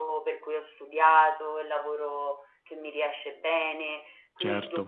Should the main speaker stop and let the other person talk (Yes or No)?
No